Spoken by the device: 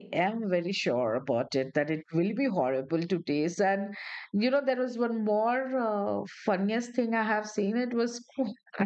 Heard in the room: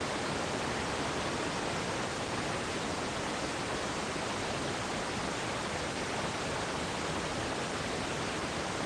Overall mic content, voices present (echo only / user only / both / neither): neither